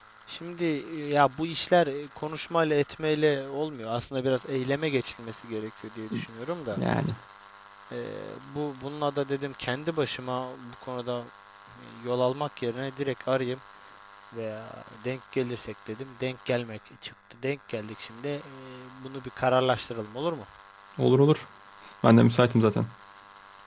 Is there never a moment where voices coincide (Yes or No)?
Yes